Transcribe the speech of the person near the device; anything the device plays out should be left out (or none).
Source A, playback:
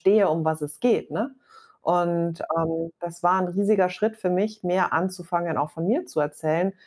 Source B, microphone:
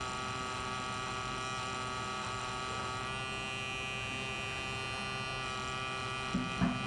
none